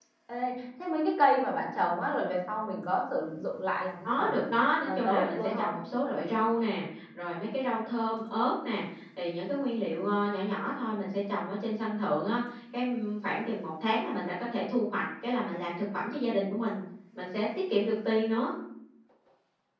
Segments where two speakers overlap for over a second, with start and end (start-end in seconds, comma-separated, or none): 4.0-5.8